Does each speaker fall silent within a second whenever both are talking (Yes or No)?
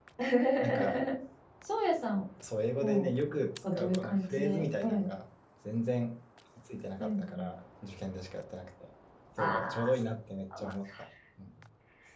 No